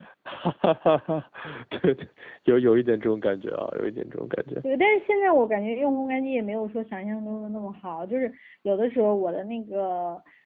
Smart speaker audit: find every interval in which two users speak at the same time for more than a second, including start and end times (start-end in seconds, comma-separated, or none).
none